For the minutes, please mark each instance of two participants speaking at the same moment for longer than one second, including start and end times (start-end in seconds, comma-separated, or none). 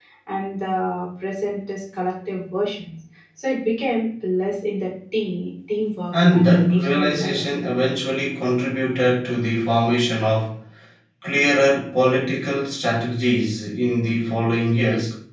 6.1-7.5